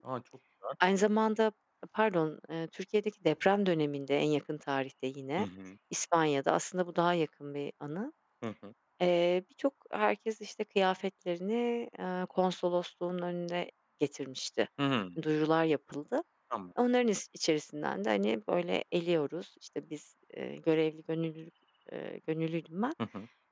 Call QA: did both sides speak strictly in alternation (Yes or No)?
Yes